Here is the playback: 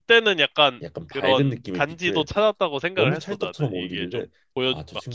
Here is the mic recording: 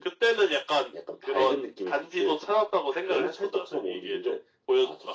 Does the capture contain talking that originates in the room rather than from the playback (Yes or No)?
No